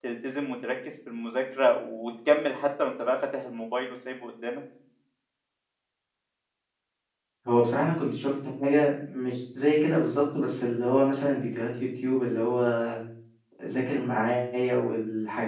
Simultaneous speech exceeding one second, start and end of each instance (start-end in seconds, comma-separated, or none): none